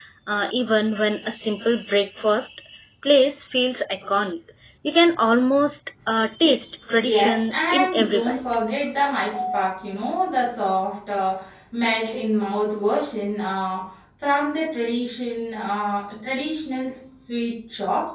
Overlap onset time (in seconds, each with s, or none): 6.9 s